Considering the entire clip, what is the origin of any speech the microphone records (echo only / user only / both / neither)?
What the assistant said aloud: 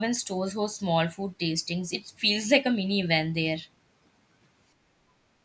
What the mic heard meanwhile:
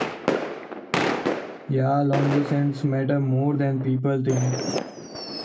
user only